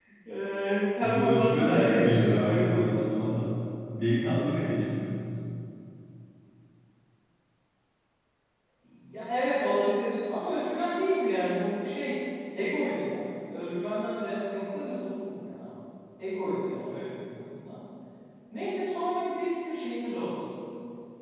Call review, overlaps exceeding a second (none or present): present